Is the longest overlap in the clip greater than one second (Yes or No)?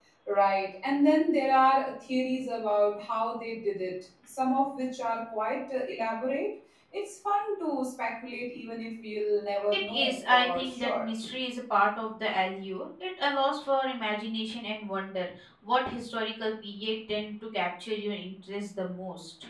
Yes